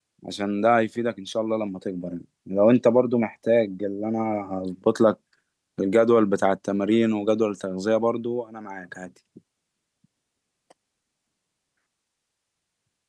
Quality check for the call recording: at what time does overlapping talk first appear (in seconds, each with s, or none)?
none